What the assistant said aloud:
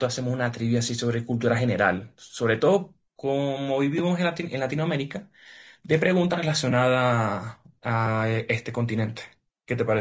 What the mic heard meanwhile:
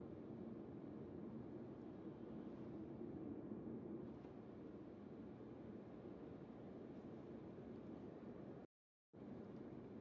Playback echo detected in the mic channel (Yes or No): No